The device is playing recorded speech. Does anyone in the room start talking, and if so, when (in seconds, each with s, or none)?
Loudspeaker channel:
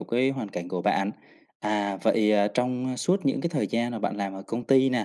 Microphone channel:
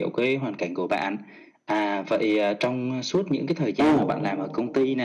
3.8 s